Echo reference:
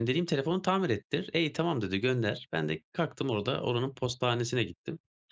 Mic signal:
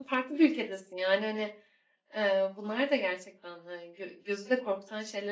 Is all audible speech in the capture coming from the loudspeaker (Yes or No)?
No